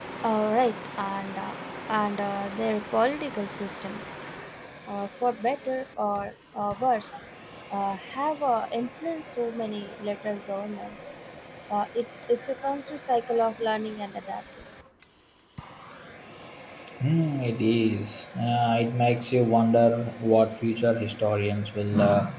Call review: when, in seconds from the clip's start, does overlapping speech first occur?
none

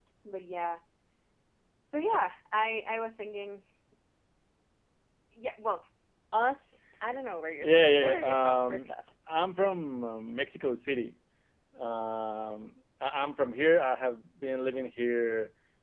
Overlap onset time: 7.6 s

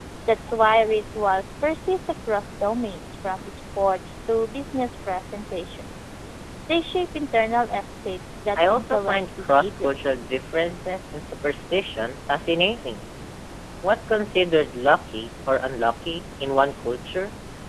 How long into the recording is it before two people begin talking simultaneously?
8.6 s

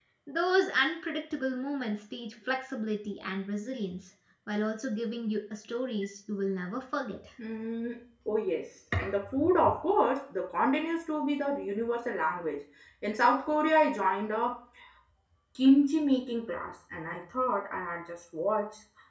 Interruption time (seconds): none

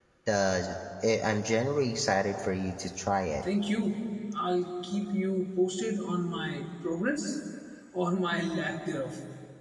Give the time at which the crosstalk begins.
none

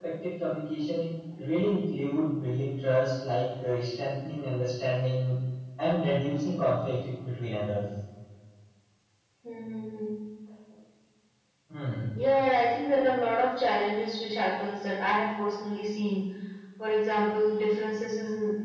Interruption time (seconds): none

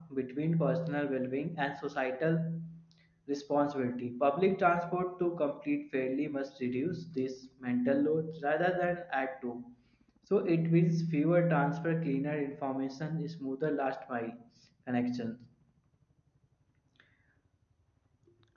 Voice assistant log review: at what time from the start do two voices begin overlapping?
none

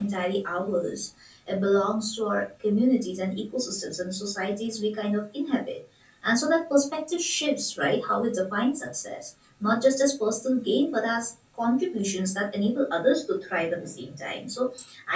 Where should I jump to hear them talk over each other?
none

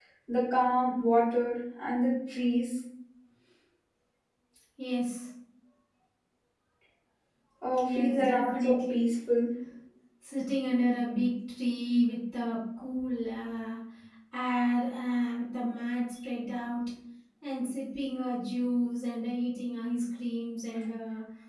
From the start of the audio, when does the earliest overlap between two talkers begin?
7.8 s

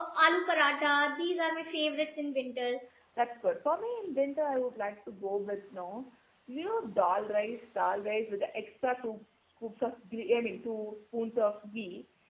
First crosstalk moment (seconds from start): none

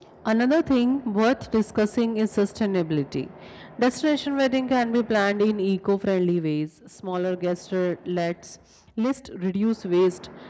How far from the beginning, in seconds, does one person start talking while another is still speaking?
none

